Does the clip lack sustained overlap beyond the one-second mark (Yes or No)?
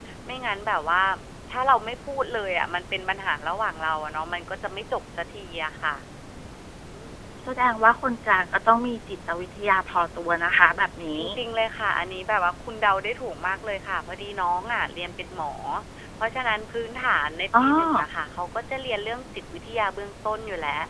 Yes